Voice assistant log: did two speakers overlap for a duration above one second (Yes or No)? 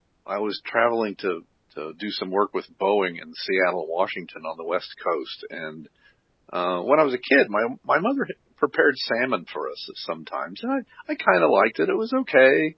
No